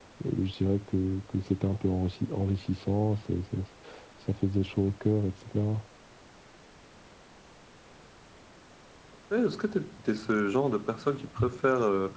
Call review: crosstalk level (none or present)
none